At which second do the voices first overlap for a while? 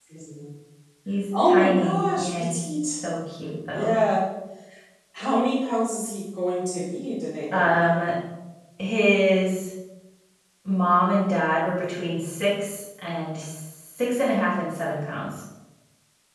1 s

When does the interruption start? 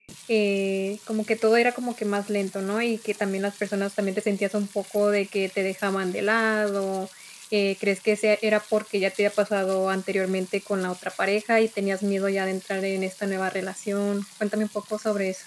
none

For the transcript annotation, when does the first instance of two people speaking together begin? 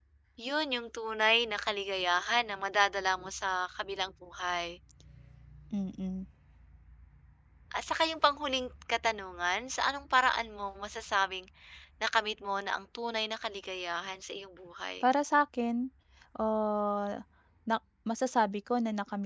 none

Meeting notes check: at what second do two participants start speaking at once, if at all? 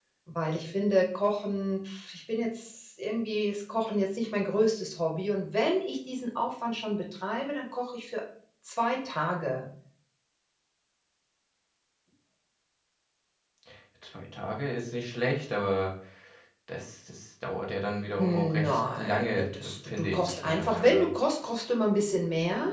18 s

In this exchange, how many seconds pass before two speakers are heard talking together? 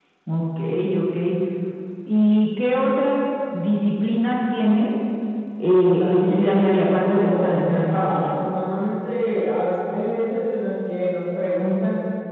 6 s

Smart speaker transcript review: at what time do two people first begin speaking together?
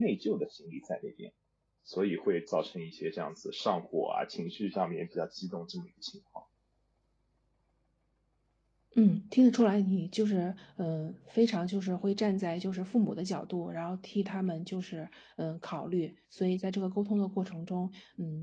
none

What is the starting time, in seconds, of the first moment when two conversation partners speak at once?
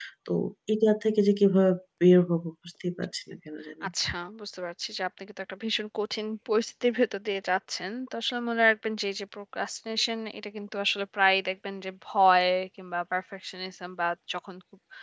none

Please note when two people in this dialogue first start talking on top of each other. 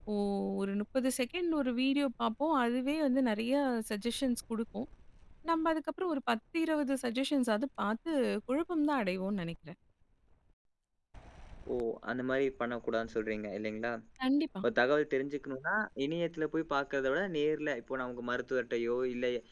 none

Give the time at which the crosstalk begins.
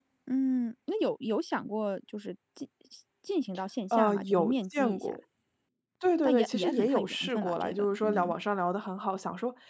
4 s

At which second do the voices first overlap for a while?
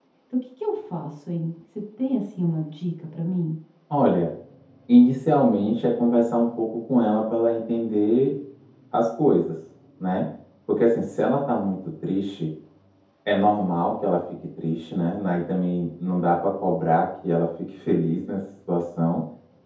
none

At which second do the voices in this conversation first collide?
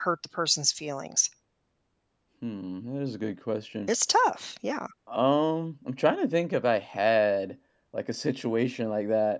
none

